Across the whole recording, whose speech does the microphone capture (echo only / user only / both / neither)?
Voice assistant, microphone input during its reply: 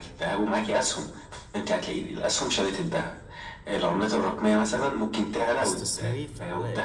both